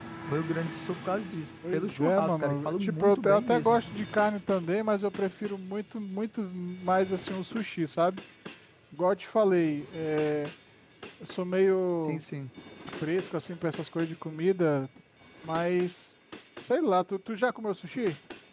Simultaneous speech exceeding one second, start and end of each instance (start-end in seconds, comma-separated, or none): 1.7-3.8